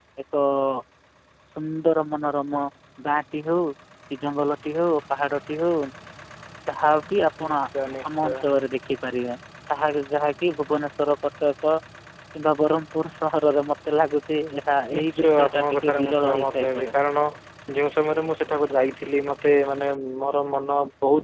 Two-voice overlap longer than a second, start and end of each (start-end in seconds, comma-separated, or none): 15.0-16.9